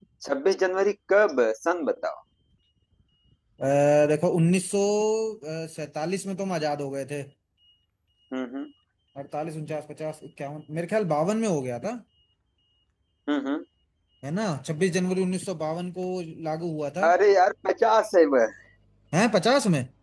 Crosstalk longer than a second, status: none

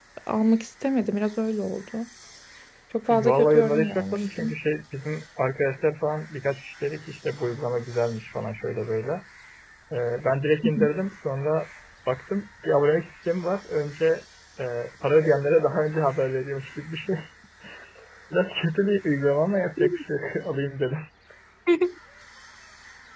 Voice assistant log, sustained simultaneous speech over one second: present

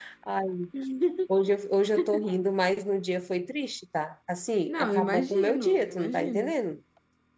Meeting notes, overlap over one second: present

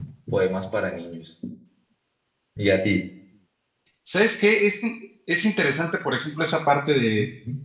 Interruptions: none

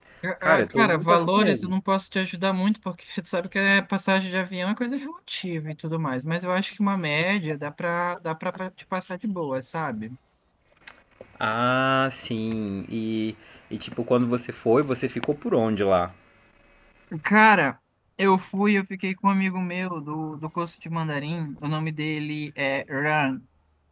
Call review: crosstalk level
present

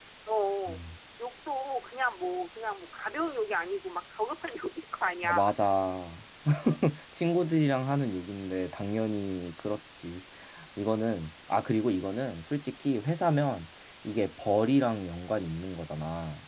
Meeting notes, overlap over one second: none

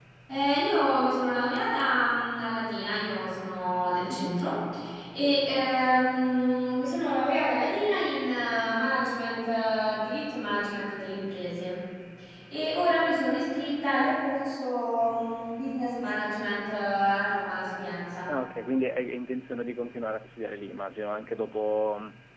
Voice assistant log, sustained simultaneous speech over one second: none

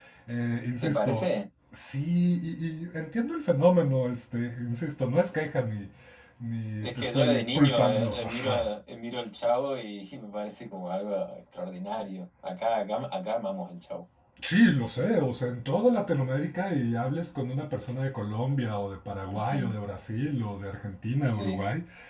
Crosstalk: present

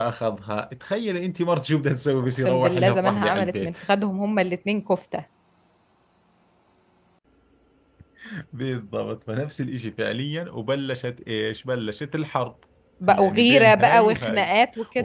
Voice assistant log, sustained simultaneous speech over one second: present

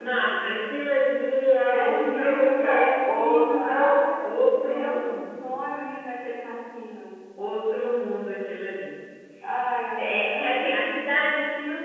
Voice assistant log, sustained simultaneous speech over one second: present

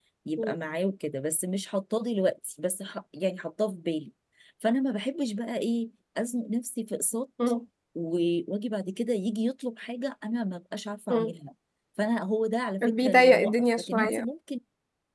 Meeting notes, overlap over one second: present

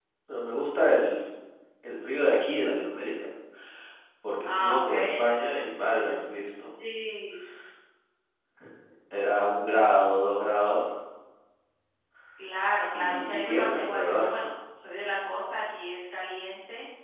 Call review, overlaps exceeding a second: present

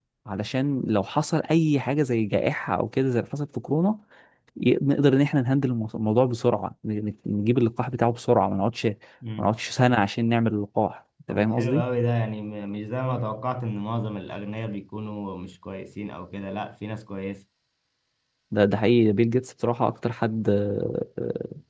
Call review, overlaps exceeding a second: none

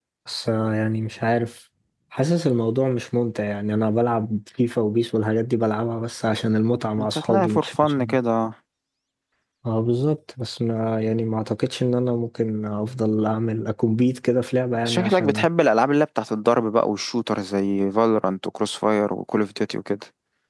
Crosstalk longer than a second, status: present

